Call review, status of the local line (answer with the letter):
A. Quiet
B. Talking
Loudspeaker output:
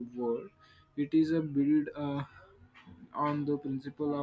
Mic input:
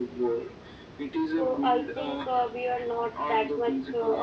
B